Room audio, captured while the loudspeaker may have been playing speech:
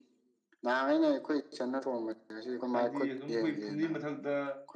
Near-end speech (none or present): present